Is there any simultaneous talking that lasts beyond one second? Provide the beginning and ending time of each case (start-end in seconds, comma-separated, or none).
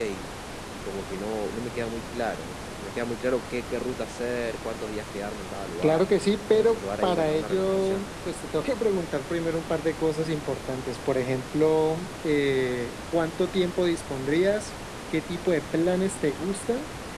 6.5-8.1